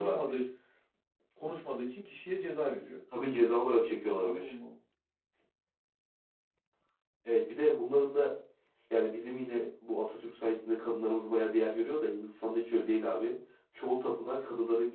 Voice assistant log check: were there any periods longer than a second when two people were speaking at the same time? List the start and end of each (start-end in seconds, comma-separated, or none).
none